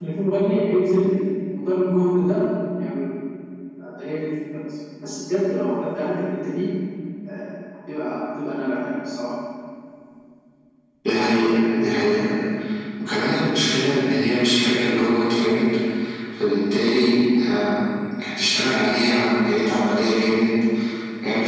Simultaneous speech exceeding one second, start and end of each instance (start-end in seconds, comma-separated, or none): none